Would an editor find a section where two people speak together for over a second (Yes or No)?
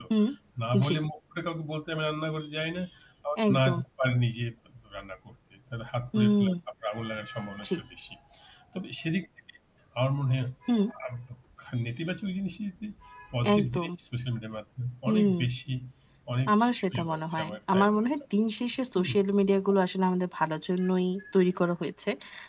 Yes